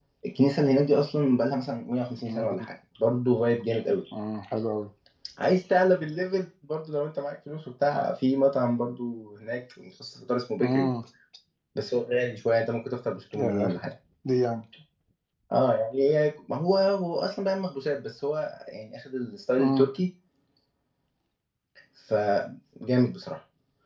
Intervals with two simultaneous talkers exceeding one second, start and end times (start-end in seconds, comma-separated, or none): none